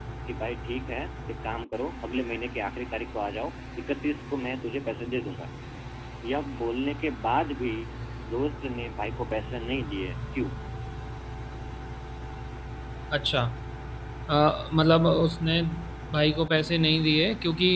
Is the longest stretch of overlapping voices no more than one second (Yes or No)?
Yes